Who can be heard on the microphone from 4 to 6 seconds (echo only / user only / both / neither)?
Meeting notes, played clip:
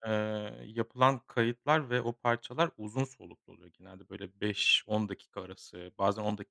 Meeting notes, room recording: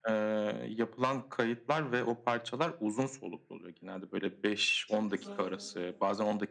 both